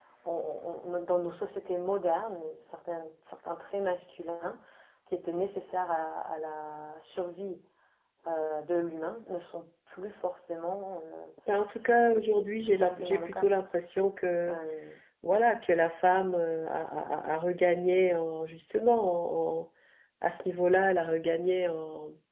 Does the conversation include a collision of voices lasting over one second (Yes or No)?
Yes